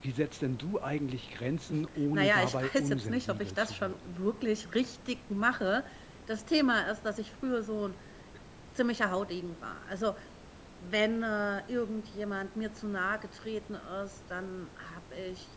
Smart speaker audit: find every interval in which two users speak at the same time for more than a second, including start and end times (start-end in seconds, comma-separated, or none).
2.1-4.1